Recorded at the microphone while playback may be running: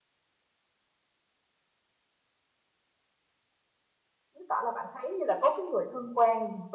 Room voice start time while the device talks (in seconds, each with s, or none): 4.3 s